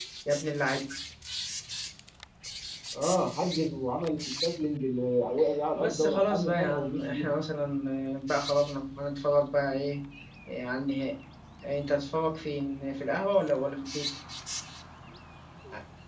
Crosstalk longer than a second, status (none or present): present